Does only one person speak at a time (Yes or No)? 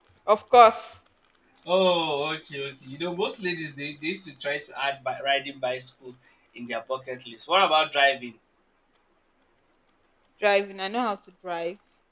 Yes